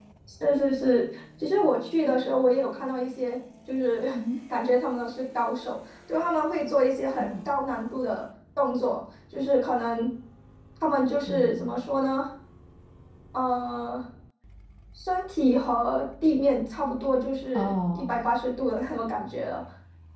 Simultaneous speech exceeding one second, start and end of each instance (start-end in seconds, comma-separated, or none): none